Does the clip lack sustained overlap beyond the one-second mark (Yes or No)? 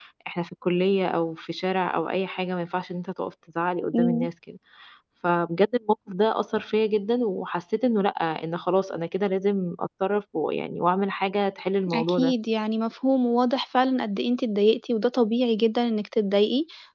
Yes